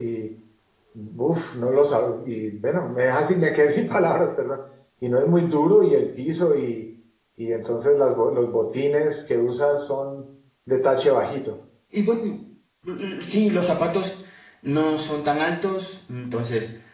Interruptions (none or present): none